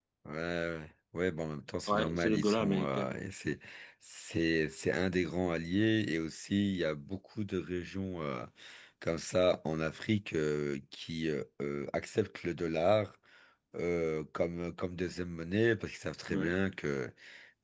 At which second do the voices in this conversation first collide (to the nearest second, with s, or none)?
2 s